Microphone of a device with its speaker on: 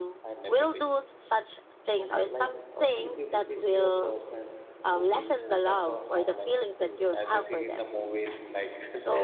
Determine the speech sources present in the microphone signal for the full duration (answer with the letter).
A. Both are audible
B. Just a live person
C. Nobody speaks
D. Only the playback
A